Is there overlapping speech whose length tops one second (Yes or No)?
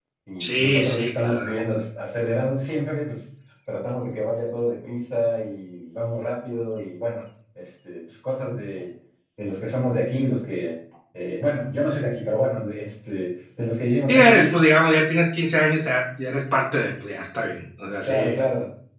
Yes